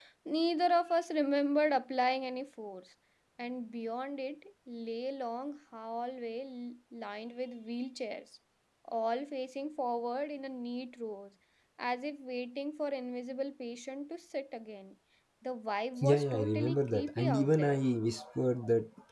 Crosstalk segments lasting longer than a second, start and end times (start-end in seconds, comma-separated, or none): 16.0-17.8